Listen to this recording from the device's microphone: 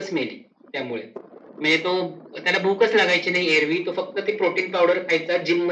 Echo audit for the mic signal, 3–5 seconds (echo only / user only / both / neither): echo only